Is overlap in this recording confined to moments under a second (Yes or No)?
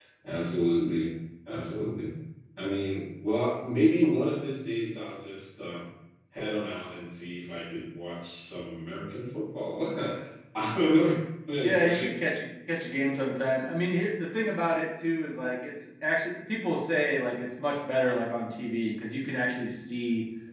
Yes